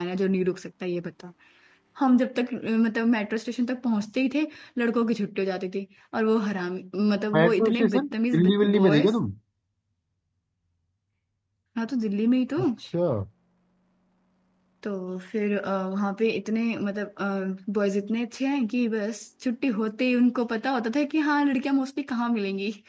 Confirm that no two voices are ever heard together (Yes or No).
No